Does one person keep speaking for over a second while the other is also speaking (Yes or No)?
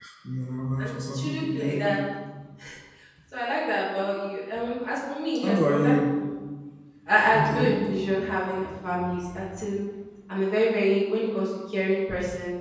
Yes